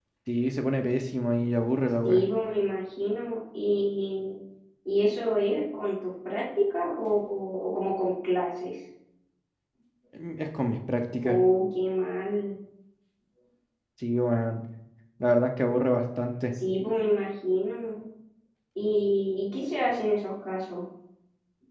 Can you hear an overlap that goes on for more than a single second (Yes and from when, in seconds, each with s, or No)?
No